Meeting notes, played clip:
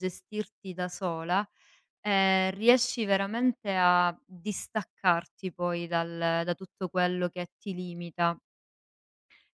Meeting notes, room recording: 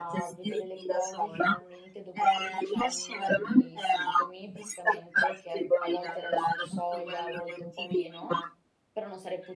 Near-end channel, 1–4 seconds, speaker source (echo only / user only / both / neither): both